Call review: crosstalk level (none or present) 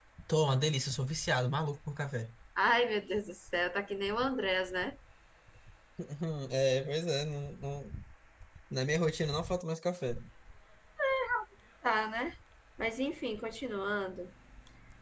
none